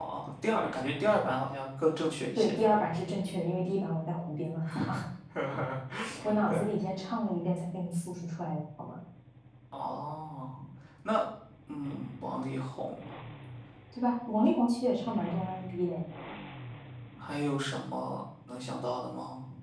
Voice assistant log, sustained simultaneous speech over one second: none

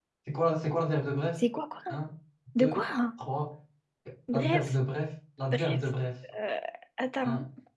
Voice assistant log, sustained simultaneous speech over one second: none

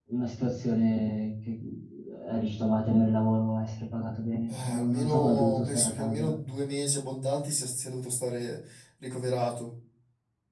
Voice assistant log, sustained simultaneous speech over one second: present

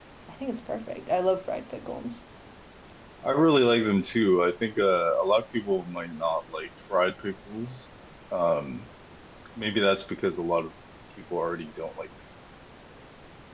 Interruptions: none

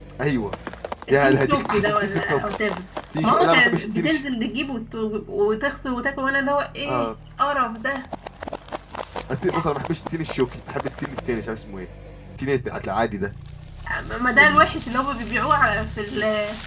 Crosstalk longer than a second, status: present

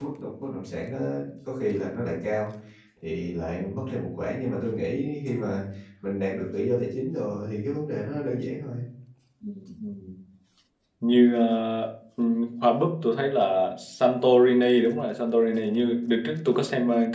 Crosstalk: none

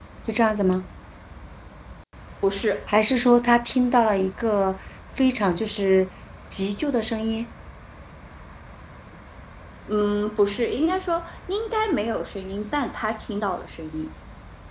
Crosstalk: none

